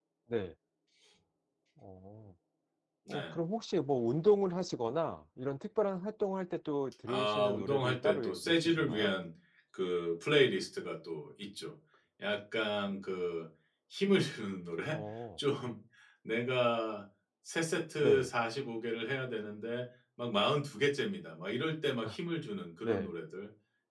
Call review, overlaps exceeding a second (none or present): present